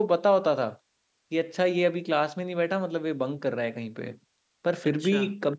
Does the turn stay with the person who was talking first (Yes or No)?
Yes